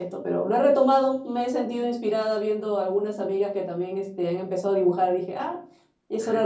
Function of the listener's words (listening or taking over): taking over